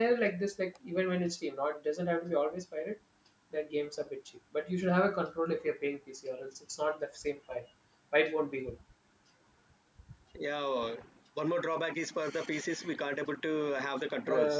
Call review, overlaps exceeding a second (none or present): none